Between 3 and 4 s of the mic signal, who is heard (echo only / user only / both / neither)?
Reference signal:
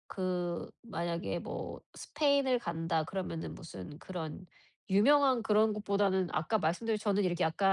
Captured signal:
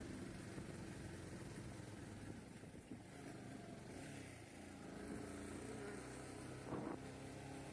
neither